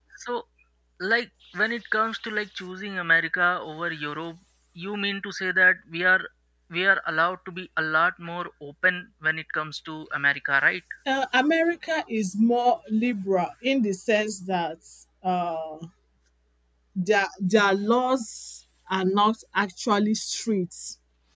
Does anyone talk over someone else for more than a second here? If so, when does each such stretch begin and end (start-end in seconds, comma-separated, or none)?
none